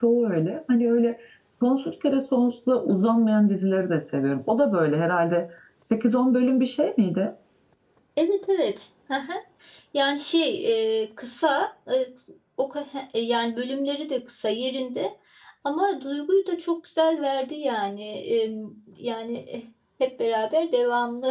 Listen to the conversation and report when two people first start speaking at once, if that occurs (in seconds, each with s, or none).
none